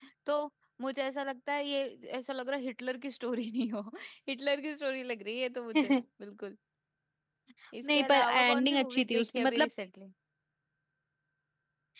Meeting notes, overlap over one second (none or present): present